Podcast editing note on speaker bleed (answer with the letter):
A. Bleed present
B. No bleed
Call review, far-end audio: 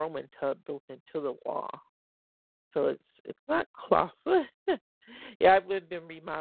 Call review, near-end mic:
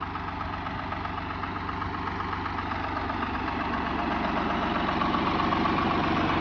B